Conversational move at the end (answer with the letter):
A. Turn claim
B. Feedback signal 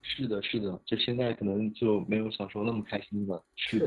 A